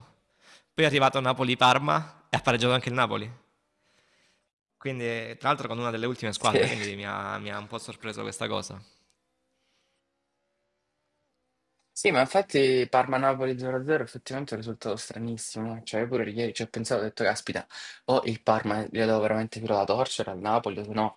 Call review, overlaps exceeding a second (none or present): none